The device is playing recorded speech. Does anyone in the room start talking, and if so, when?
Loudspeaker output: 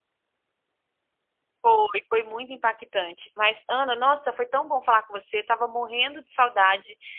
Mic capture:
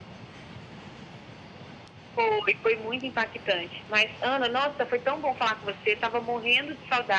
none

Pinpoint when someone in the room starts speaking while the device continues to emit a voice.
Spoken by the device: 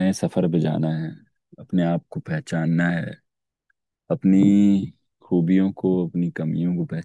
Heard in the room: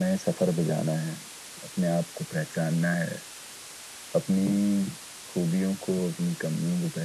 none

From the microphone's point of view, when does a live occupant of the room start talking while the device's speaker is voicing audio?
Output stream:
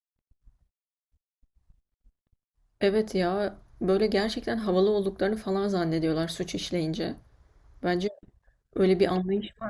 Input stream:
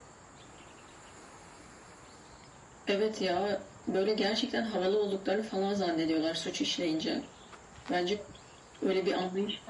none

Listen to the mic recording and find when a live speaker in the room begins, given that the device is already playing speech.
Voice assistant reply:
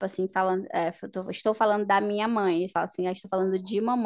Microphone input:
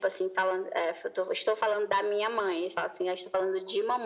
none

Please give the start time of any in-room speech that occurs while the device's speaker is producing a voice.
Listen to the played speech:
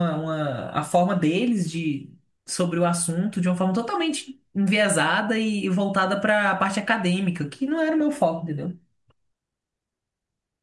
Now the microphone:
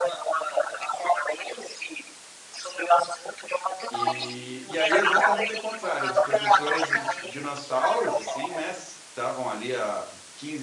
3.9 s

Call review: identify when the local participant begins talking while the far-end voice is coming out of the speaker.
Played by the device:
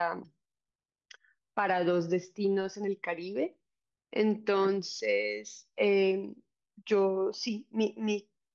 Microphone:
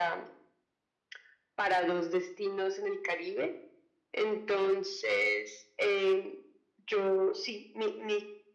none

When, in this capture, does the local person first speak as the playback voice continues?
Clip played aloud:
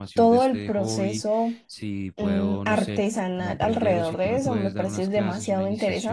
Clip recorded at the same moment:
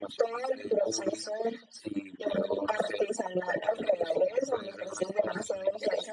none

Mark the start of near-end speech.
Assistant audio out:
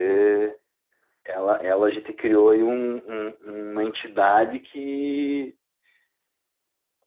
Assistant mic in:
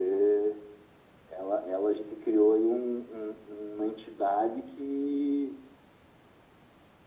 none

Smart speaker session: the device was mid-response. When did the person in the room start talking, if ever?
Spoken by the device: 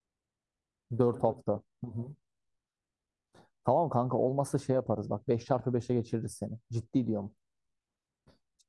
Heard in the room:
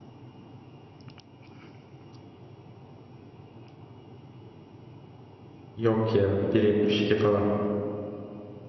5.8 s

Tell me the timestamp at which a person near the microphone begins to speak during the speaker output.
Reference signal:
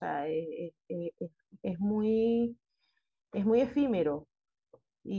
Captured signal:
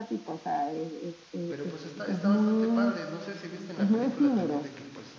1.5 s

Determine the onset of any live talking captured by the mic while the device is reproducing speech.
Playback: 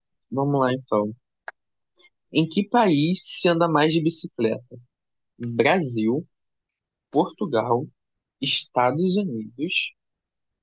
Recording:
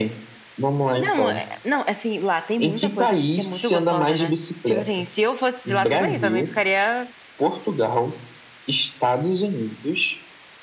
1.0 s

